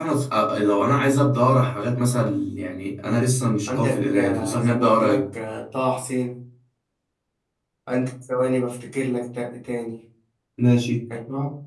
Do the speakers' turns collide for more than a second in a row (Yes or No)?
Yes